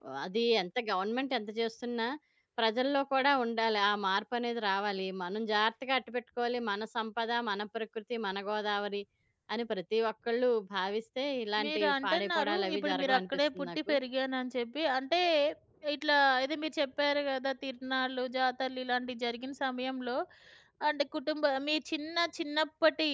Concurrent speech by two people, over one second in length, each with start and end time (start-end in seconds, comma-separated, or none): 11.6-13.9